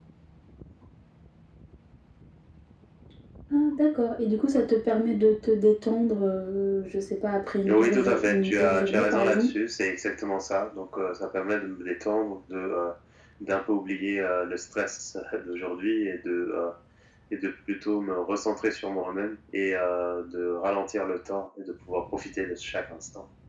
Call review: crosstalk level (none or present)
present